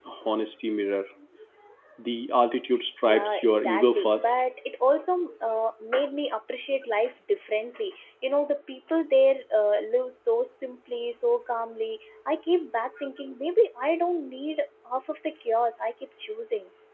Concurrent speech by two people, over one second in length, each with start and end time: 3.1-4.3

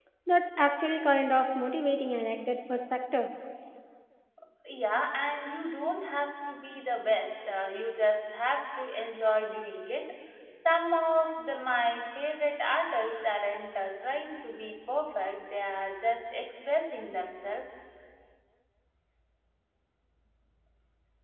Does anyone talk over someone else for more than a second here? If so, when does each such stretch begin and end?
none

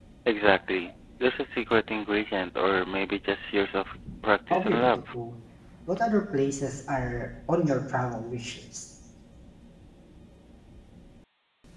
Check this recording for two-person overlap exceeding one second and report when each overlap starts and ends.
none

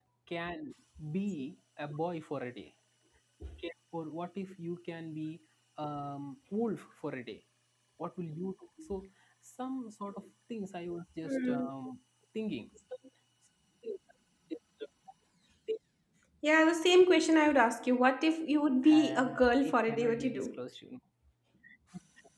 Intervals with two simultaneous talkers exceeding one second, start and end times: 18.9-20.6

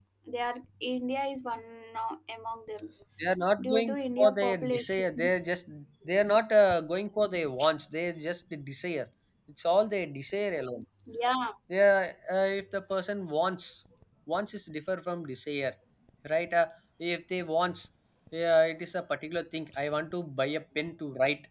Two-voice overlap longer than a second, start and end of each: 3.6-5.3

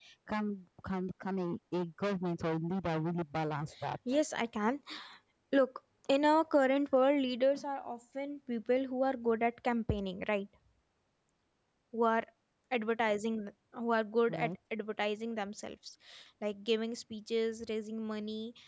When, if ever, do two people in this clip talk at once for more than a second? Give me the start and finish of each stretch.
none

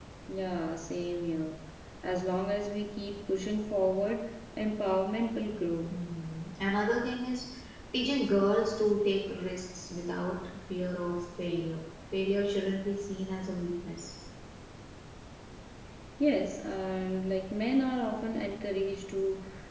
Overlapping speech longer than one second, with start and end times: none

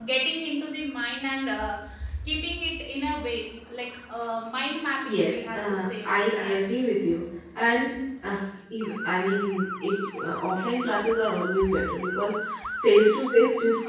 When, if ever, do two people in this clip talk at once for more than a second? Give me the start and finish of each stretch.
5.0-6.5

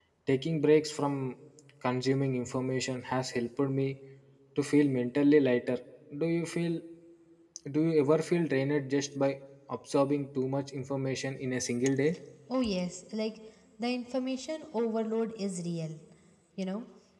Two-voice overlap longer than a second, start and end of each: none

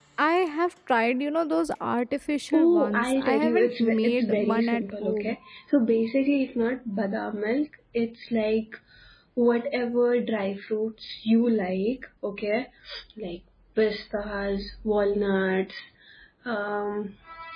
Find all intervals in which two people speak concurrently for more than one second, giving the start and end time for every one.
2.5-5.3

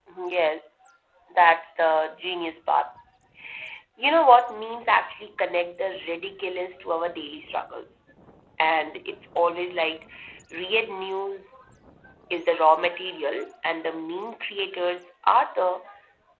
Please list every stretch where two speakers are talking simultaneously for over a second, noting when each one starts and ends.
none

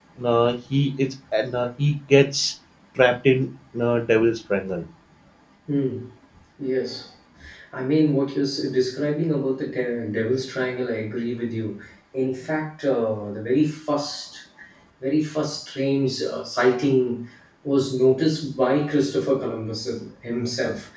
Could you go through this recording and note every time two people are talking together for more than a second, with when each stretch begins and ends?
none

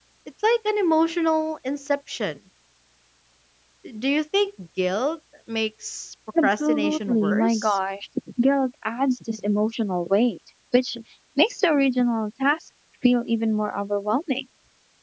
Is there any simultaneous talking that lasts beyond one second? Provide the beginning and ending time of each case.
6.4-7.8

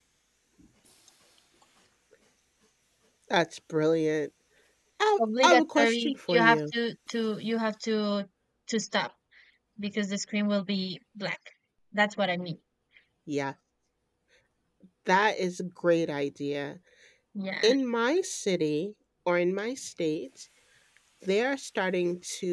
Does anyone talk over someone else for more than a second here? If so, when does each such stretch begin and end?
5.2-6.6

